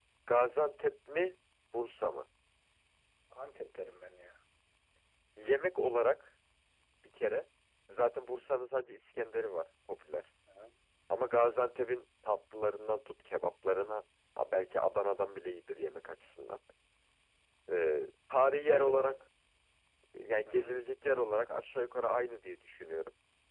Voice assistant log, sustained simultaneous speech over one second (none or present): none